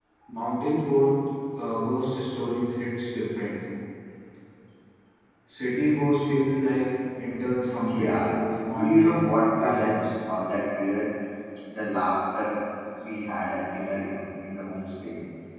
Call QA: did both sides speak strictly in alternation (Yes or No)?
No